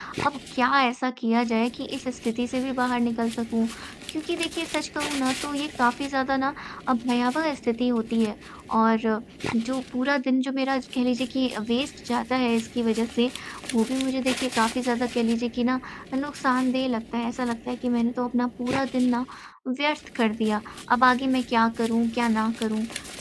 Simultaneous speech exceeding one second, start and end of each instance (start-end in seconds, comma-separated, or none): none